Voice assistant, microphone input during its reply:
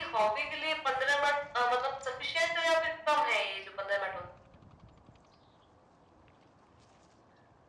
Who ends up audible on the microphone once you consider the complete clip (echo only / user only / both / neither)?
echo only